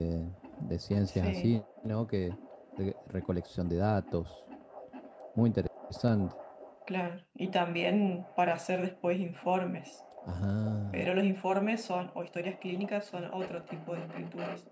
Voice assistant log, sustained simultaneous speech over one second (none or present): none